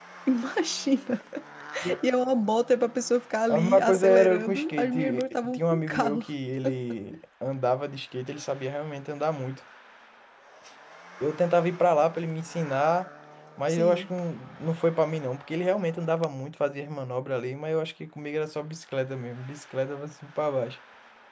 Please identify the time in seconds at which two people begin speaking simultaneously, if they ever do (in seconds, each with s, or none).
3.5 s